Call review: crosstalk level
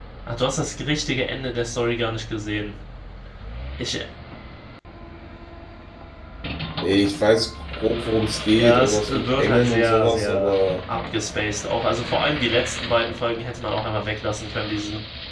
present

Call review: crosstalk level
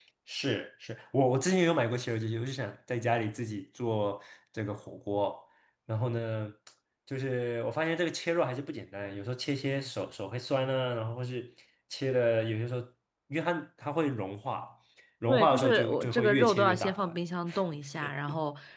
present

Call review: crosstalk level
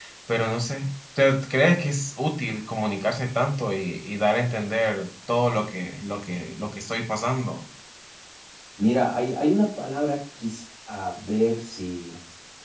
none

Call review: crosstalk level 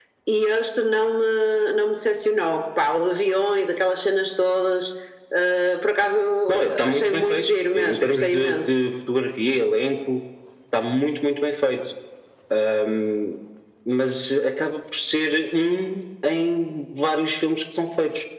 present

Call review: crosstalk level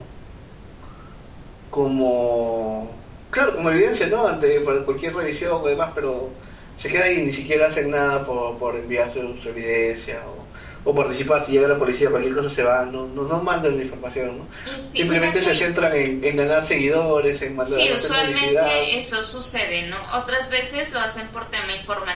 present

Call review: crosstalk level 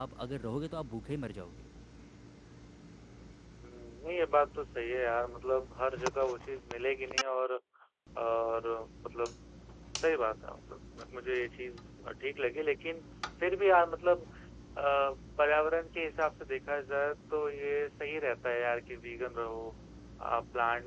none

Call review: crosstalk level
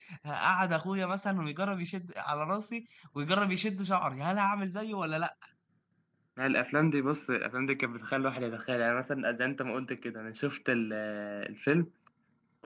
none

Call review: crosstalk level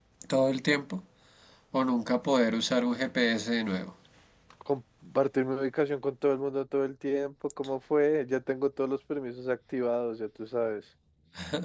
none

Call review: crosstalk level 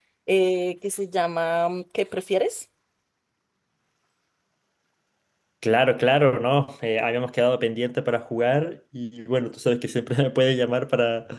none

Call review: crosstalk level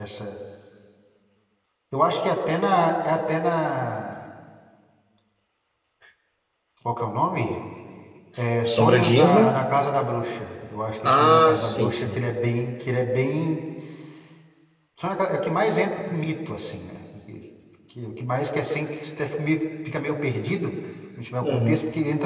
present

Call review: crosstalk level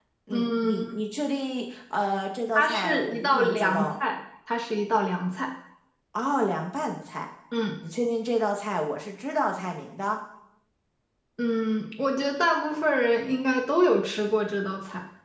present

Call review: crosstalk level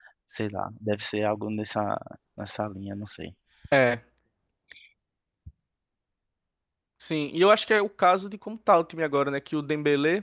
none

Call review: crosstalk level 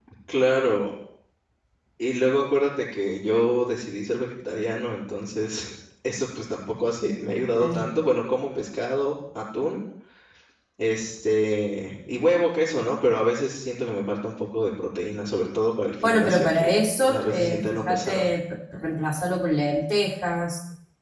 present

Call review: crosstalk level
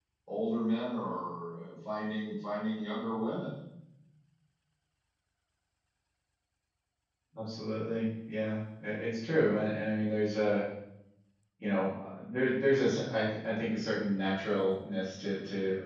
none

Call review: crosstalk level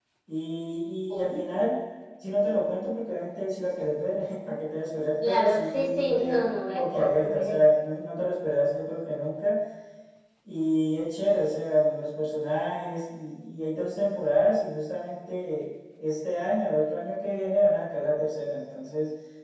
present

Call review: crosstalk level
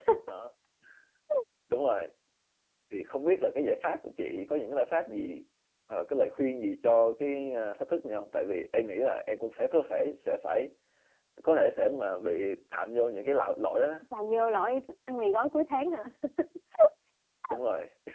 none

